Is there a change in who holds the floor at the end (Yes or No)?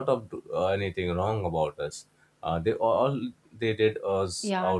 Yes